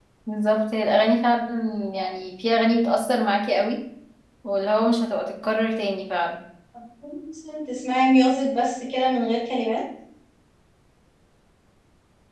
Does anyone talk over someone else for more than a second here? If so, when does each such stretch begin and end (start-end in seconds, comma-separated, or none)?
none